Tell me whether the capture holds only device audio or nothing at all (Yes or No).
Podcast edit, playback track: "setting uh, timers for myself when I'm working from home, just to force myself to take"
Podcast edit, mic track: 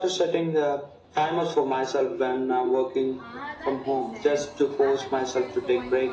No